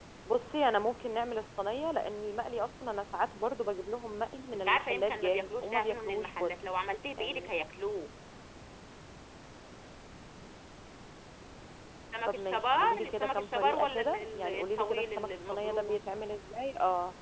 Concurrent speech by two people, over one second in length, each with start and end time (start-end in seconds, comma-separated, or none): 4.5-6.6, 12.3-16.0